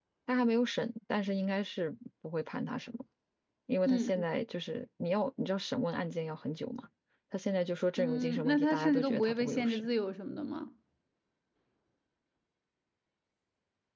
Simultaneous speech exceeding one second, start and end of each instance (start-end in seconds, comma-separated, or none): 8.0-9.9